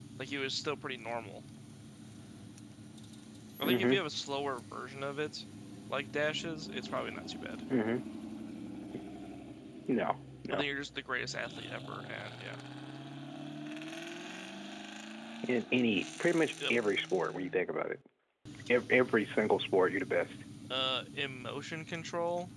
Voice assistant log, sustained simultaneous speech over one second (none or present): none